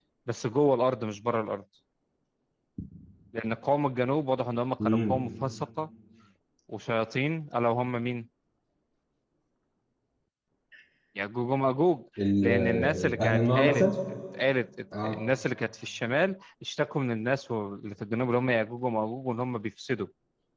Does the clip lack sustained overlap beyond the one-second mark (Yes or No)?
No